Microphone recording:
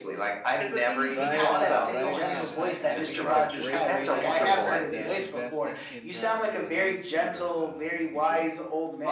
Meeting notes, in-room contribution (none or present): present